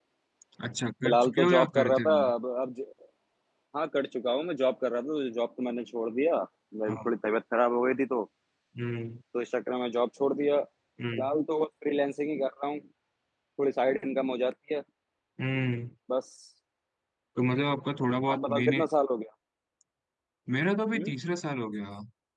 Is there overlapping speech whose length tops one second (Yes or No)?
Yes